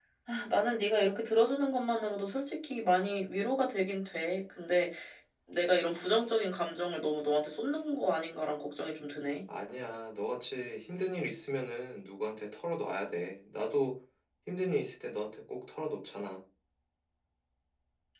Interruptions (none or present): none